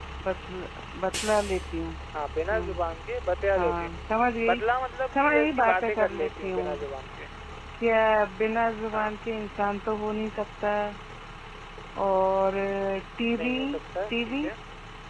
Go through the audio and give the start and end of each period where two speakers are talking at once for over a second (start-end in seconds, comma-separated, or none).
5.2-6.8